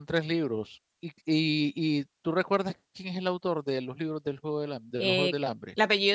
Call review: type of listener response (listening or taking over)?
taking over